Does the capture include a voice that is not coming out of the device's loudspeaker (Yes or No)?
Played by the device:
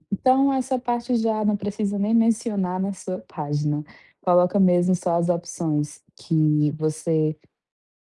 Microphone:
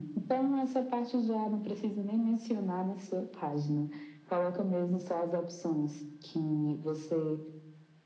No